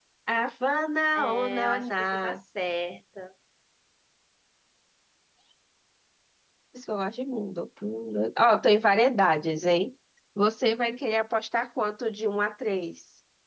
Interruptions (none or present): present